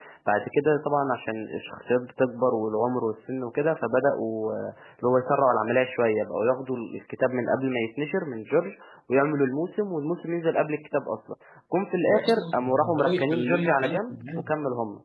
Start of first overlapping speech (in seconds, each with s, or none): 12.1 s